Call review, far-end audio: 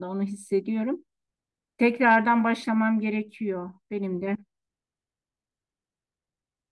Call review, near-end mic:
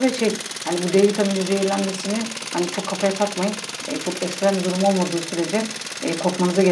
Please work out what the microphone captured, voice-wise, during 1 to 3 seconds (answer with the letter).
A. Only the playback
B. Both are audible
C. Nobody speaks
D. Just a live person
D